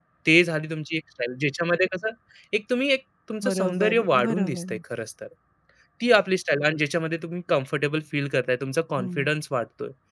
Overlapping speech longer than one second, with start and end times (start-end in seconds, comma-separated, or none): 3.5-4.8